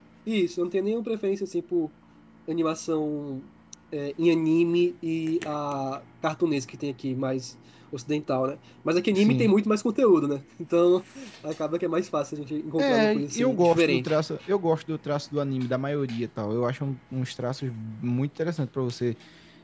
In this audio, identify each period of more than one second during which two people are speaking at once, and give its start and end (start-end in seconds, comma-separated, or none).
12.8-14.1